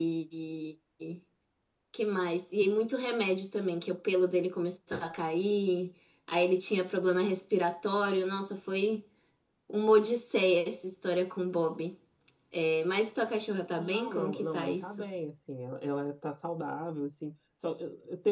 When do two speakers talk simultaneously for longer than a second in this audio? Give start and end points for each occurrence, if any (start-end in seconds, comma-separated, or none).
13.8-15.0